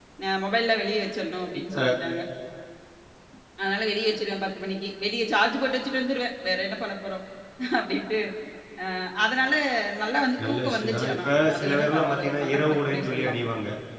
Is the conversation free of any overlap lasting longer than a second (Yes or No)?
No